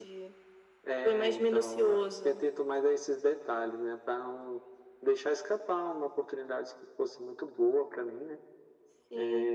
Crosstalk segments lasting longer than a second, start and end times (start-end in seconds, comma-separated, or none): 1.0-2.4